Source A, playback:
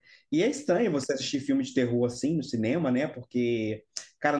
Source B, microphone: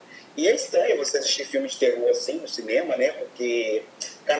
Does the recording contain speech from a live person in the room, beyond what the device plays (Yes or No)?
No